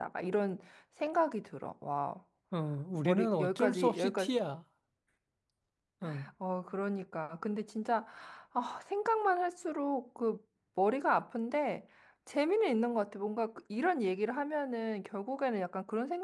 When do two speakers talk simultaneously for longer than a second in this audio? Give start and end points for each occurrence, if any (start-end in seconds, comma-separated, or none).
3.0-4.3